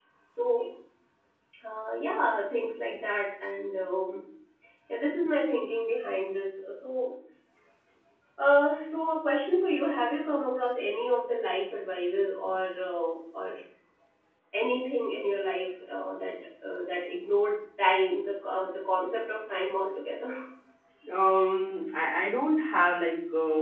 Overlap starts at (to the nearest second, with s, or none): none